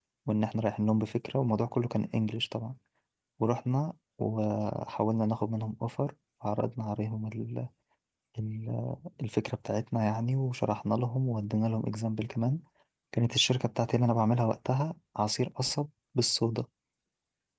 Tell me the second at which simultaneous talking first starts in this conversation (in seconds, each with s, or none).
none